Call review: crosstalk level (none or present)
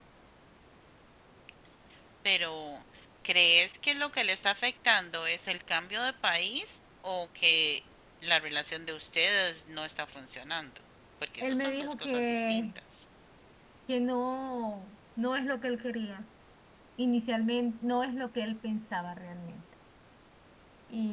present